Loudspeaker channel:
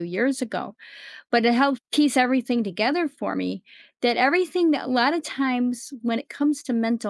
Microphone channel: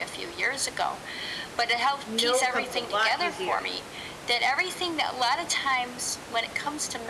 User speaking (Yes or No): Yes